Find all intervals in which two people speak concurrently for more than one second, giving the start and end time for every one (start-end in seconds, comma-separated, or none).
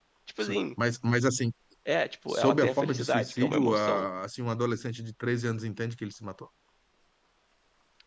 2.3-4.1